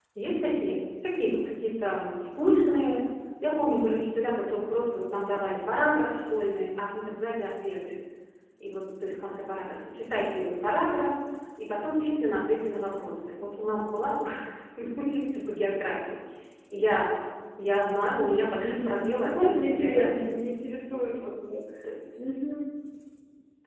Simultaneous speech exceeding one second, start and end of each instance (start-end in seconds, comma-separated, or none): 18.6-20.3